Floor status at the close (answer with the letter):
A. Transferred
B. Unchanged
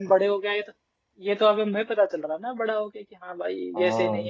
A